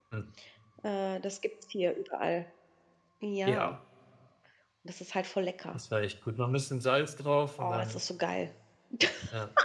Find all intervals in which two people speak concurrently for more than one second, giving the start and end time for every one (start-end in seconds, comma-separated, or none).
none